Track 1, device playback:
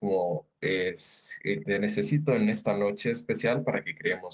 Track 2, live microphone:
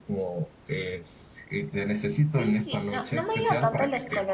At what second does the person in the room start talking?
2 s

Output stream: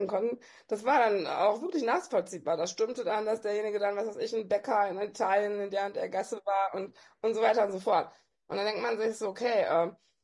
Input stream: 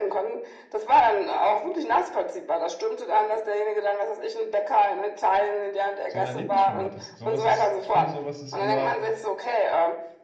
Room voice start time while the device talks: 6 s

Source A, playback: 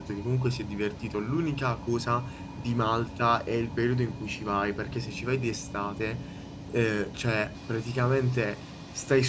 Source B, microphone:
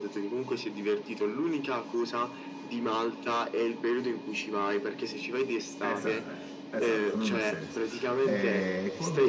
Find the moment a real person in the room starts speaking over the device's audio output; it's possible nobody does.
6 s

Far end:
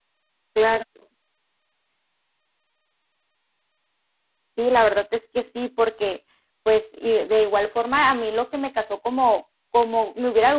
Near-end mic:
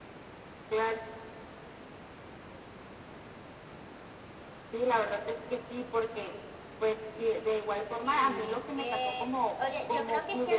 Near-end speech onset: 8 s

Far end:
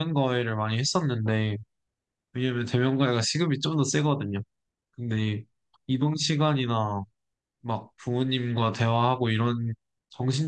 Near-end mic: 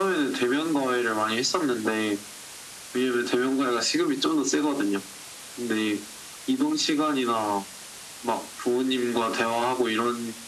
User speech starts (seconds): none

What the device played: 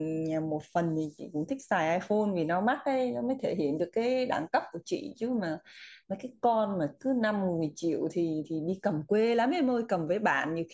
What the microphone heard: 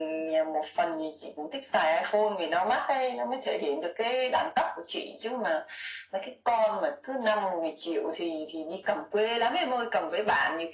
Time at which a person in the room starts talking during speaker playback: none

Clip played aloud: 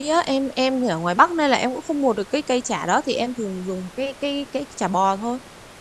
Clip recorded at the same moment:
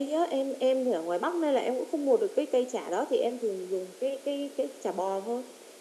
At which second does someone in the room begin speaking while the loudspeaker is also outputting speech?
none

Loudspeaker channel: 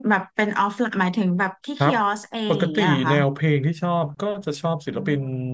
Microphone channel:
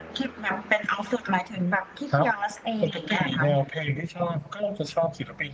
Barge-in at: none

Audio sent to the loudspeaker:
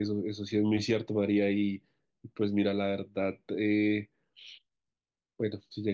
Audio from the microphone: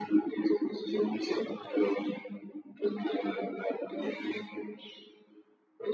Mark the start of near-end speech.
none

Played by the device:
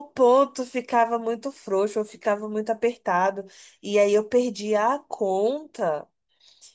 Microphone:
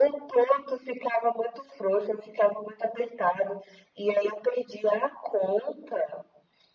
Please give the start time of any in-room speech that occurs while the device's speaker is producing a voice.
none

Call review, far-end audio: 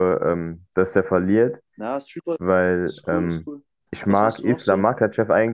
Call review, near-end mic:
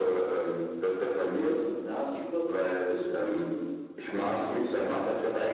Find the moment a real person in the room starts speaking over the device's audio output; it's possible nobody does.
none

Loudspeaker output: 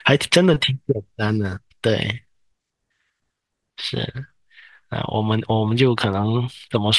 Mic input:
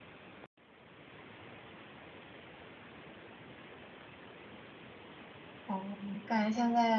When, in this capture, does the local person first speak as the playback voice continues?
6 s

